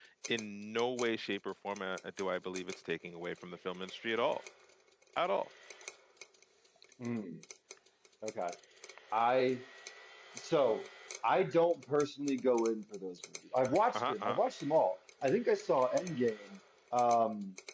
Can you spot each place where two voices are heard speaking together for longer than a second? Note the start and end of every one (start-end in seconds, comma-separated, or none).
none